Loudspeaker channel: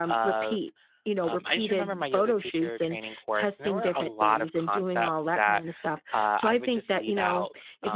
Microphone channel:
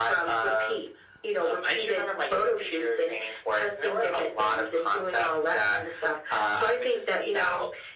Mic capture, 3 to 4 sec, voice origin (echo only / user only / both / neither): echo only